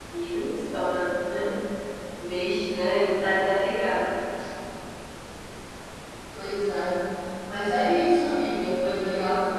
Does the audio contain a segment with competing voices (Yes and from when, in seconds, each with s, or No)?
No